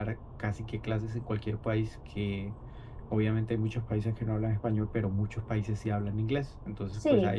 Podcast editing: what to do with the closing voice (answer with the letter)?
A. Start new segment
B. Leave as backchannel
B